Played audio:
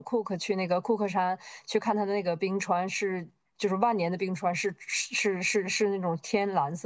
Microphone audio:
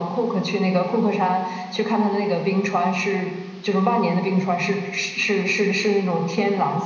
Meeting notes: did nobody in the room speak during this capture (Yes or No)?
Yes